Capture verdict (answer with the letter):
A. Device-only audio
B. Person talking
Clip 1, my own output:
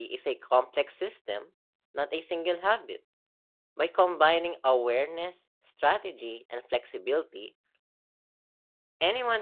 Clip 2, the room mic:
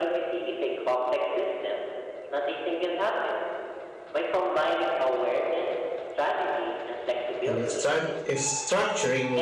B